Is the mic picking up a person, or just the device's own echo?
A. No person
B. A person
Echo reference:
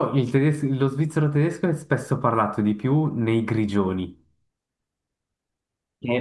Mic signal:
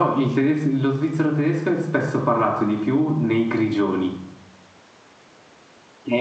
A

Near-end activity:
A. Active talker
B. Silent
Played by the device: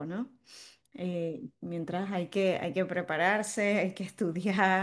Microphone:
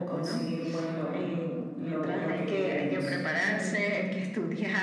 A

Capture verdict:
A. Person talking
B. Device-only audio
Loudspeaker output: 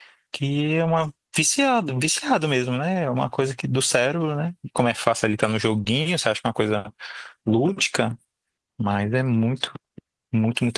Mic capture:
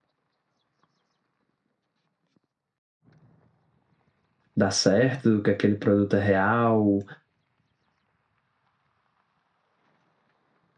A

